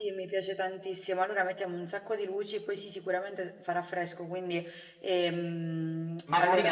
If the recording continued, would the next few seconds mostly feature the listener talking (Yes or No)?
Yes